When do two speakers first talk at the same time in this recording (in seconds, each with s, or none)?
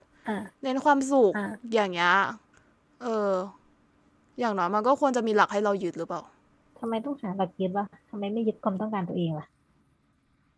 none